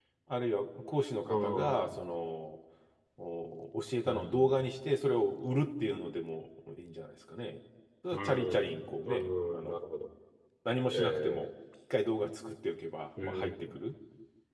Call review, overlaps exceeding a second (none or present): present